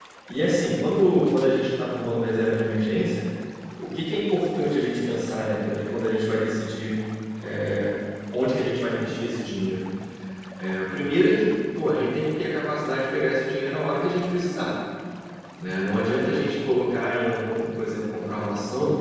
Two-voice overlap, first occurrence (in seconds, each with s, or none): none